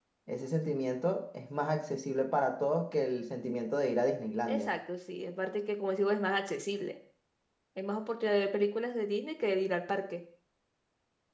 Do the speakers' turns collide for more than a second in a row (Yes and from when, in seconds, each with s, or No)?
No